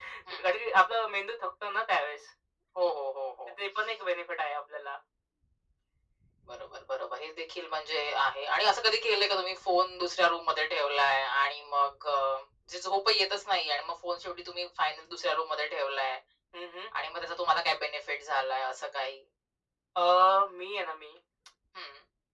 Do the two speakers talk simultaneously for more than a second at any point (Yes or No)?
No